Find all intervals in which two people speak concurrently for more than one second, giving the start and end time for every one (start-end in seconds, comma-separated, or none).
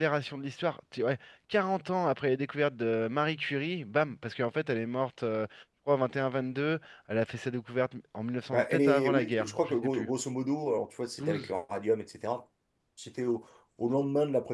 8.5-10.1